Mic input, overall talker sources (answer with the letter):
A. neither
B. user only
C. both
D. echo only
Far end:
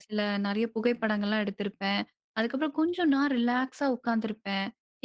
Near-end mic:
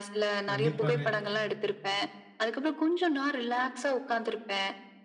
C